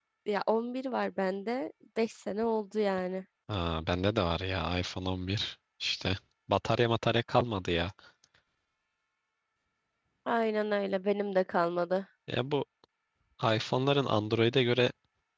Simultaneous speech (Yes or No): No